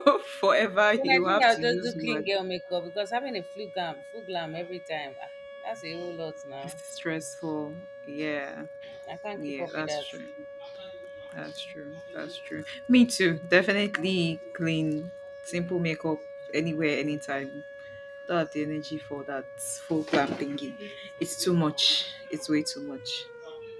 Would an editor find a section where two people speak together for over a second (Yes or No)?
Yes